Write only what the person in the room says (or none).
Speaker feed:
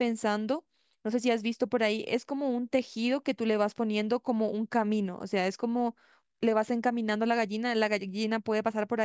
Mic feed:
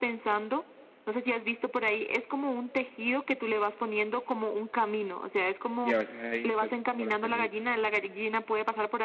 Y a veces hay insectos como las termitas.